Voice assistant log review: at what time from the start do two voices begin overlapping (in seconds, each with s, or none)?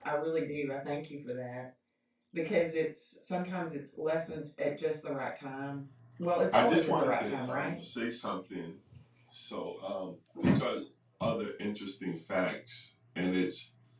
6.5 s